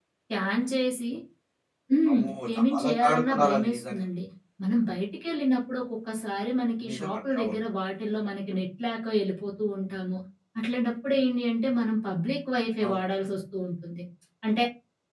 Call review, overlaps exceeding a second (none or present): present